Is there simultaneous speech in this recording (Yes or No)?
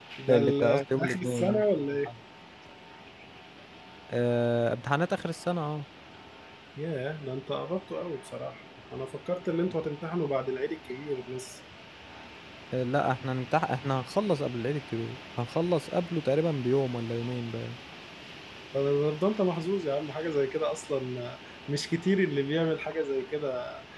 Yes